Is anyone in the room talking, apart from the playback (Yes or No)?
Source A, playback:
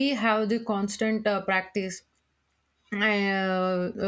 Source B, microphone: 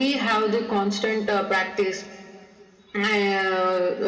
No